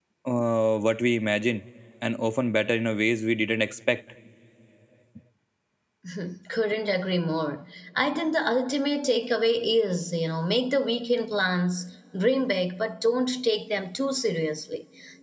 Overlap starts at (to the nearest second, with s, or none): none